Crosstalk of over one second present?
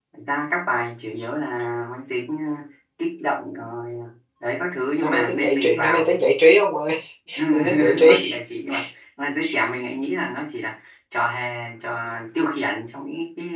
Yes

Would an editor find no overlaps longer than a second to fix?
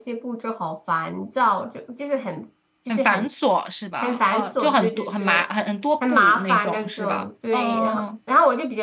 No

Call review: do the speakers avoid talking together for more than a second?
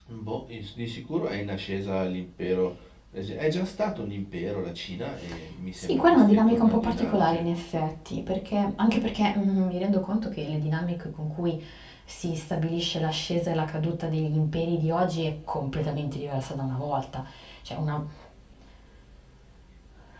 No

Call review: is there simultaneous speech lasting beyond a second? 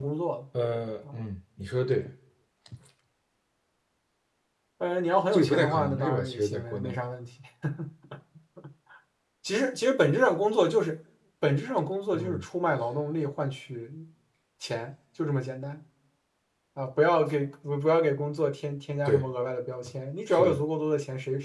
Yes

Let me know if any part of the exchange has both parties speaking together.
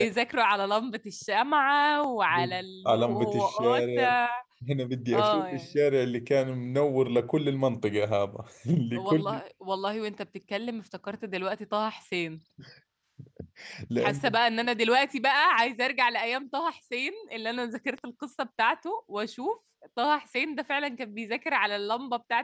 Yes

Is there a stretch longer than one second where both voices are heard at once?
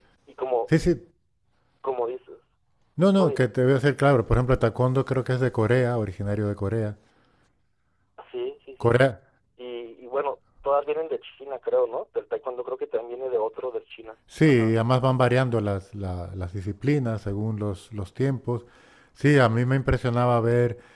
No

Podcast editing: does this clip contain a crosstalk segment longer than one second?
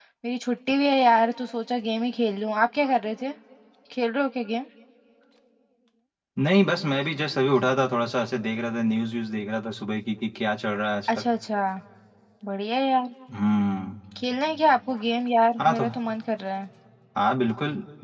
No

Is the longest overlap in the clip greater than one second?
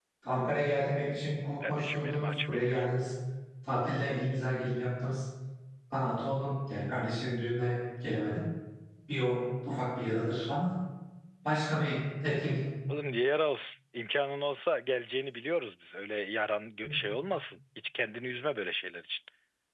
Yes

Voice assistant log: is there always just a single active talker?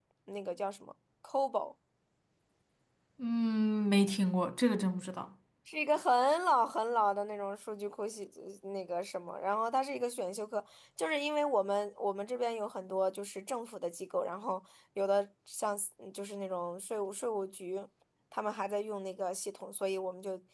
Yes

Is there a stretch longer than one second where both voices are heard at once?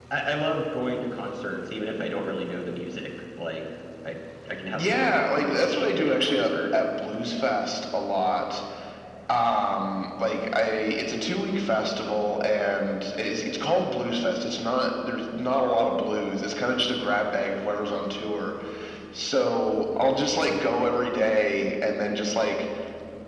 Yes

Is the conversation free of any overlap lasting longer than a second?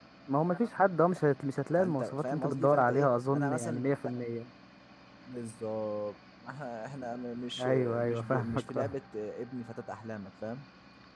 No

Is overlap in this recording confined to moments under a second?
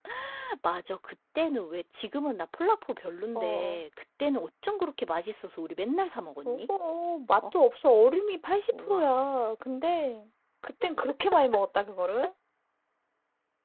Yes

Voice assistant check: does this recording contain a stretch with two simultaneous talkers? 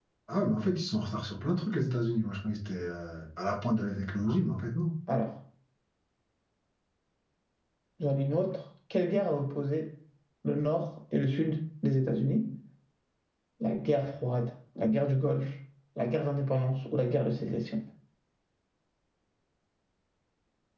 No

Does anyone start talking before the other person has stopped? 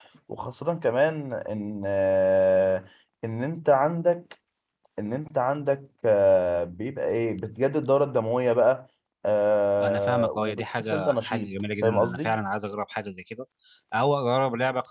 Yes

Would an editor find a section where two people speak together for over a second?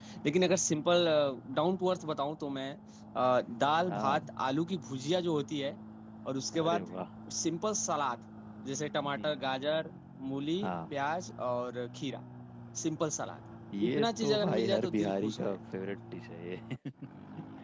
Yes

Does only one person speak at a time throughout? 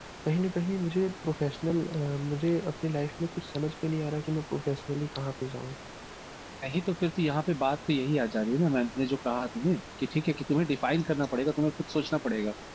Yes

